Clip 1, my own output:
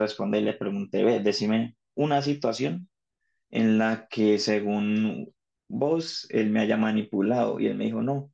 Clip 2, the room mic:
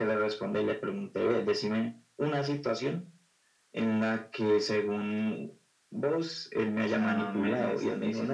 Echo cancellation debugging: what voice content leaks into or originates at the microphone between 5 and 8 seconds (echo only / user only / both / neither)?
both